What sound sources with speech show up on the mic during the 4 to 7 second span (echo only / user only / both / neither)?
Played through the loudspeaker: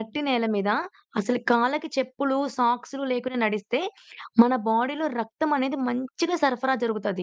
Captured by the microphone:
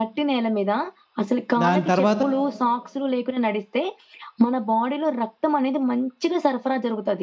echo only